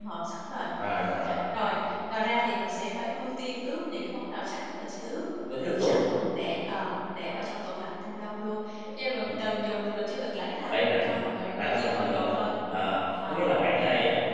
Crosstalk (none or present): present